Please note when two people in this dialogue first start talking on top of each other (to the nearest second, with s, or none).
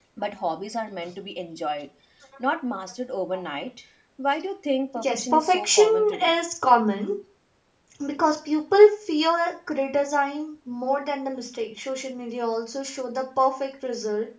5 s